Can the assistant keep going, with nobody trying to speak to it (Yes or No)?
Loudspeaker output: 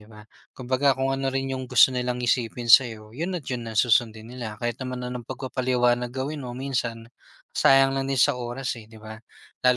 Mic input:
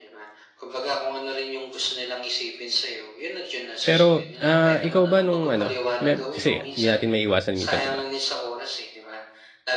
No